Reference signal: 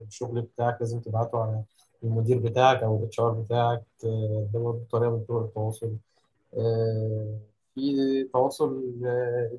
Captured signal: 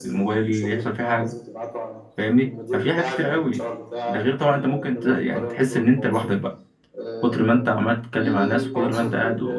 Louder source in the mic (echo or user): user